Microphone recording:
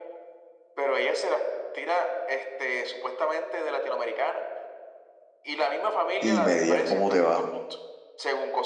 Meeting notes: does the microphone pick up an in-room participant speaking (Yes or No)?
Yes